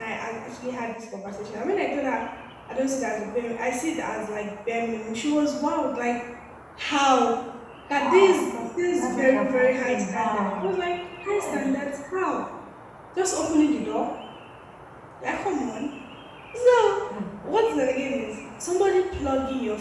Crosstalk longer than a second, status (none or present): present